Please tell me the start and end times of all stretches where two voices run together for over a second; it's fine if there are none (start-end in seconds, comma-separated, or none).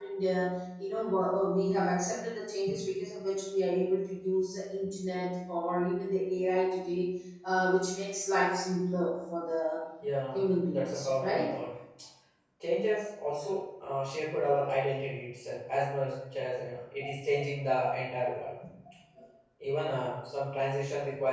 10.3-11.6